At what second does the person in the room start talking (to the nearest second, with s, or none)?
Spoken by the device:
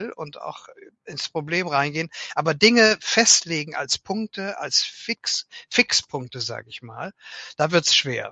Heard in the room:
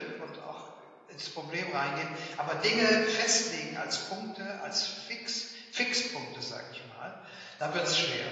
none